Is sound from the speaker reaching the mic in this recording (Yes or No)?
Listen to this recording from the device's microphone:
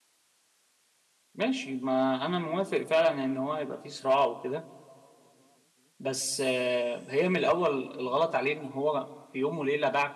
No